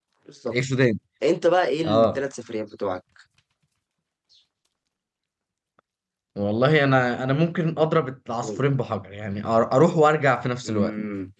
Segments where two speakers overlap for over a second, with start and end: none

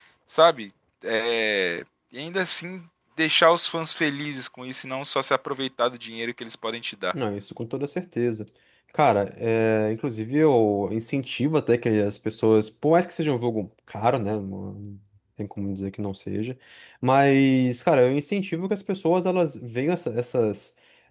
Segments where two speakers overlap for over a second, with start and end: none

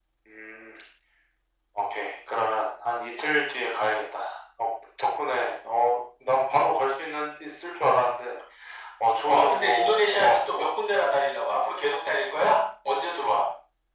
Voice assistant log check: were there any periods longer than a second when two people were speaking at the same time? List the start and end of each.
9.2-10.8

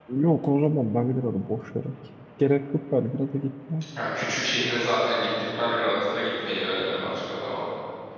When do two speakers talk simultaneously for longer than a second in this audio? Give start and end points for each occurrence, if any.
none

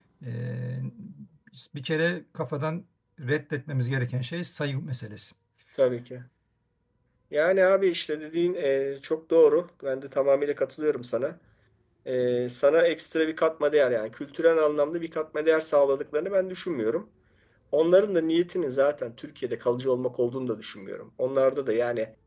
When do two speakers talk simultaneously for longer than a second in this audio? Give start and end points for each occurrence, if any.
none

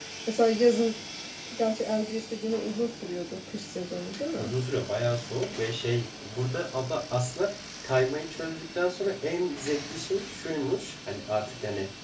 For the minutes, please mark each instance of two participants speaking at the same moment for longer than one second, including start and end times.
none

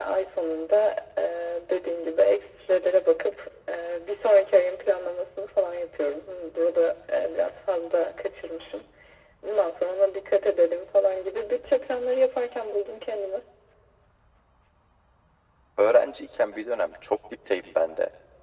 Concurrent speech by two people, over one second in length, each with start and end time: none

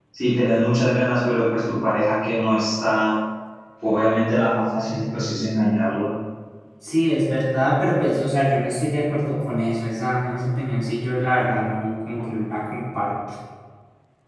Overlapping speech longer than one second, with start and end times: none

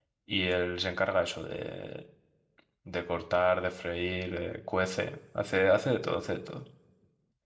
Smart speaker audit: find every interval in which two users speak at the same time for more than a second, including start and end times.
none

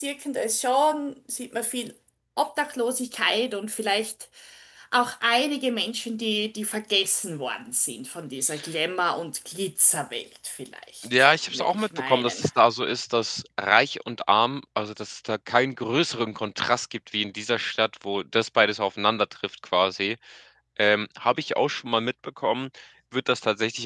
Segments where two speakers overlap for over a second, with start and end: 11.0-12.5

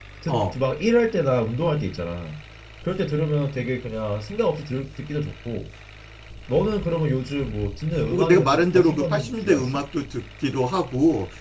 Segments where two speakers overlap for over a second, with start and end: 8.1-9.8

